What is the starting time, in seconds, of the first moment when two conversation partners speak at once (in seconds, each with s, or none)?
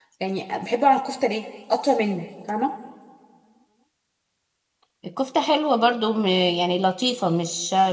none